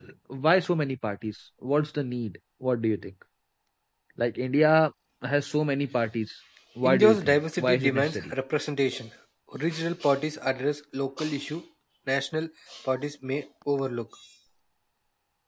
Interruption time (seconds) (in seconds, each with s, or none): 6.8 s